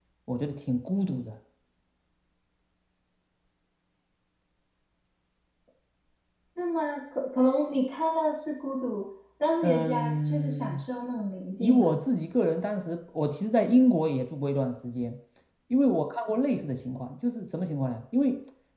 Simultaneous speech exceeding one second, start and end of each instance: 9.6-10.8

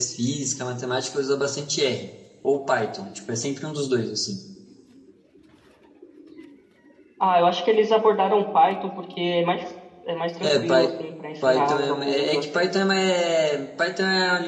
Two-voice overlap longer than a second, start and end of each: 11.5-12.7

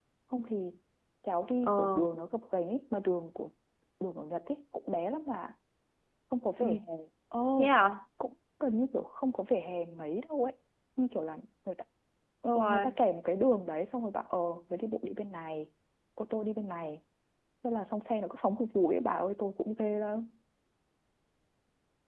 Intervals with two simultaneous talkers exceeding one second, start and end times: none

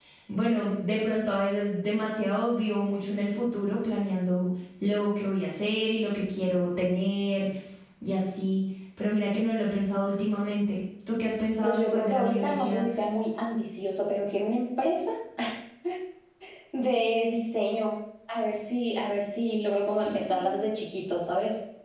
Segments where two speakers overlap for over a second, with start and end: 11.6-12.8

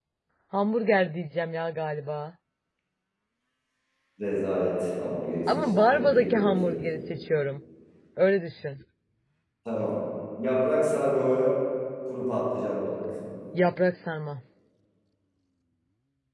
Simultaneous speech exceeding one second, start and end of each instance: 5.5-6.8

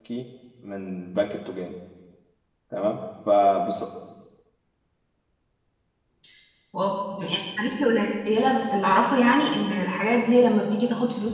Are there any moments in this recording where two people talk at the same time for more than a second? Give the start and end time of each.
none

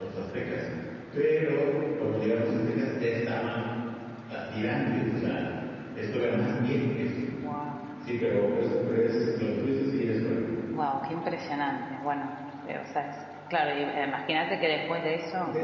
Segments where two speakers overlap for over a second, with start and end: none

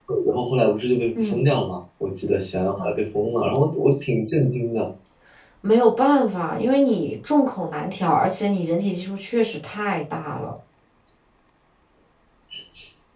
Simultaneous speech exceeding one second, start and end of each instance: none

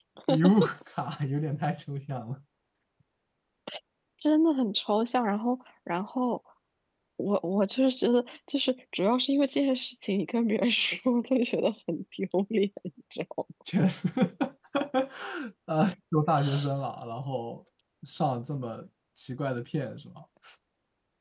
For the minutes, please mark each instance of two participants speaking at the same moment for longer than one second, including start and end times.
none

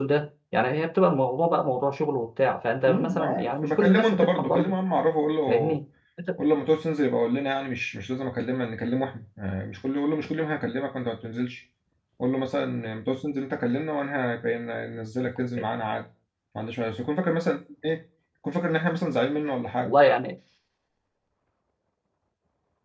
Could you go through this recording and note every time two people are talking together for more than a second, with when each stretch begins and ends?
2.9-4.7

